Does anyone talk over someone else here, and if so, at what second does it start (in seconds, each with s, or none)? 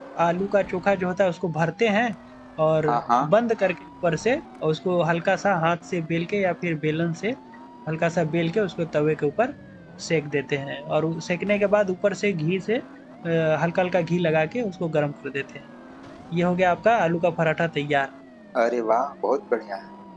none